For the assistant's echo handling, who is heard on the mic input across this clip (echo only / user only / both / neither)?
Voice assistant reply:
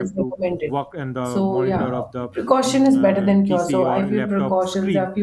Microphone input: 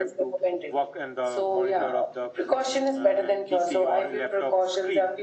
echo only